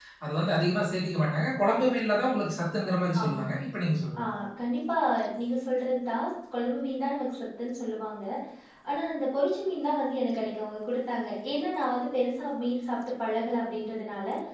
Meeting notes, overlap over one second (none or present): none